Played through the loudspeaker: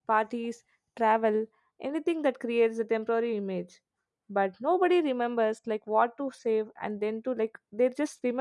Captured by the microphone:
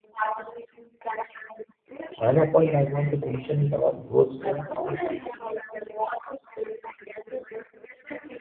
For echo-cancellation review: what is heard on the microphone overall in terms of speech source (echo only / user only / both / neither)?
both